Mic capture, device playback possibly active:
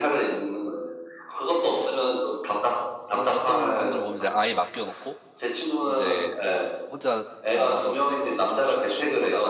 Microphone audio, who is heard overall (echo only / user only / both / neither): both